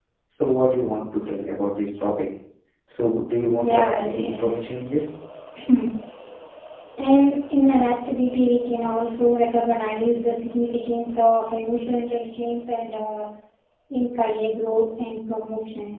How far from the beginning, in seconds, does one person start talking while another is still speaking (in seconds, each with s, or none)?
3.6 s